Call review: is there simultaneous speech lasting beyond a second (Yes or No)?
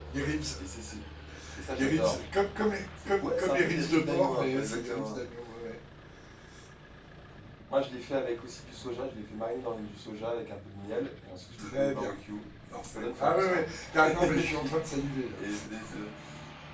Yes